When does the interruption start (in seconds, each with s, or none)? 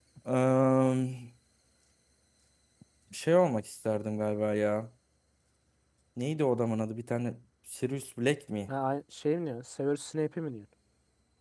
none